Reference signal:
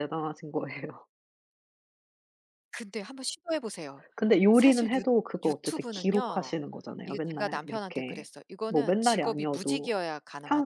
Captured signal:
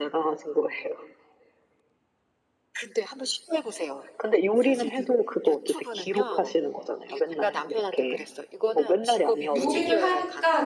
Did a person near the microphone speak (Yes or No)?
Yes